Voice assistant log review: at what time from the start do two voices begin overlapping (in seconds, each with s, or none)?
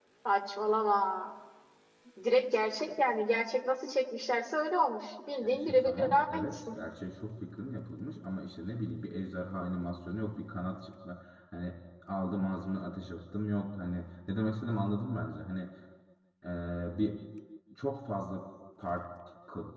5.4 s